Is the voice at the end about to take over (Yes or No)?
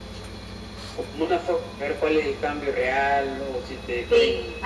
Yes